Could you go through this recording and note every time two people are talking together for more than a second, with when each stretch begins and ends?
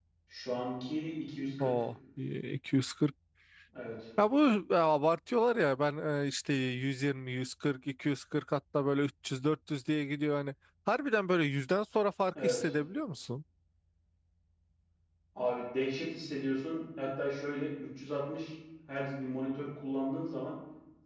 none

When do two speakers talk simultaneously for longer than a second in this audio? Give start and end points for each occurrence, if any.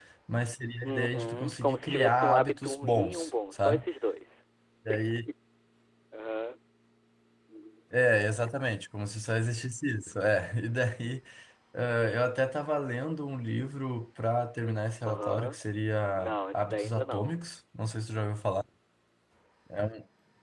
0.8-3.8, 16.1-17.4

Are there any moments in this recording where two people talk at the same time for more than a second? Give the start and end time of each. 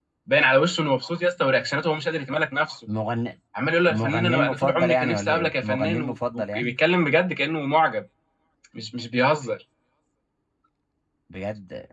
3.9-6.7

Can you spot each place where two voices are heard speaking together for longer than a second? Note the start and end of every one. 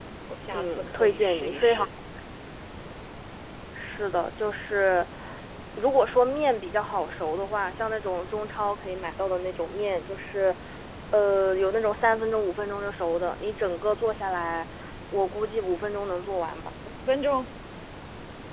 0.5-1.8

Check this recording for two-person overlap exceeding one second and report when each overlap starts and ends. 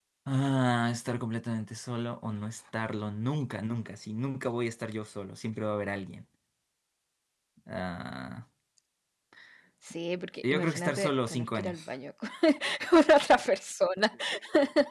10.4-11.9

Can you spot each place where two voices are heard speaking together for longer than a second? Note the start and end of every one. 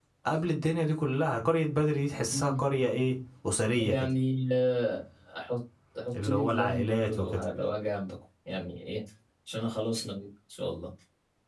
6.2-7.5

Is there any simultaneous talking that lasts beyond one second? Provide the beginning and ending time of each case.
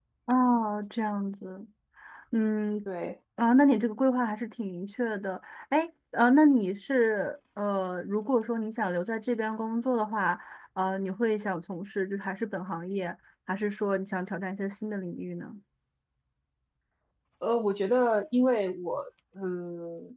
none

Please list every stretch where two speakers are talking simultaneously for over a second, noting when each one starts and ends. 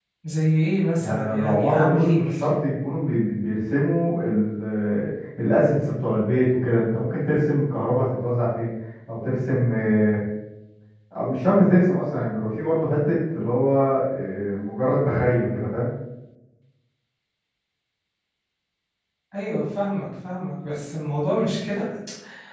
1.0-2.4

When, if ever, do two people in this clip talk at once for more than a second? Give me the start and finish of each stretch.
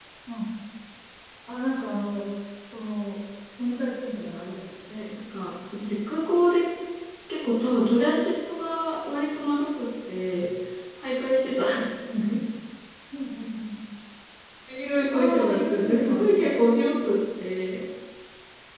15.1-16.6

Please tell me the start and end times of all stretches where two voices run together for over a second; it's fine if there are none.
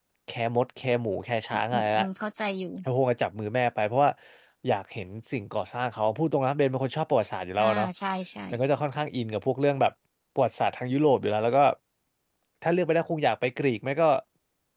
none

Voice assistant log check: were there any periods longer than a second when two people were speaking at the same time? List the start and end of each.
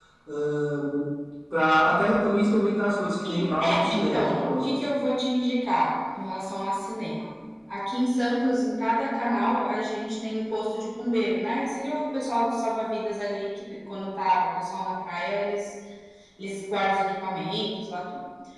3.3-4.6

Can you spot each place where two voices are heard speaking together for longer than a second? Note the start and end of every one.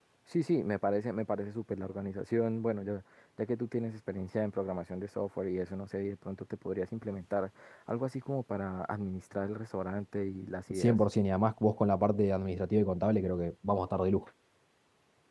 none

